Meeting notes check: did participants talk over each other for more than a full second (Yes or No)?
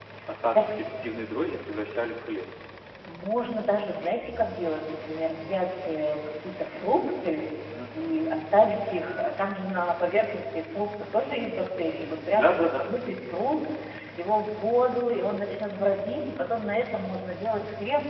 No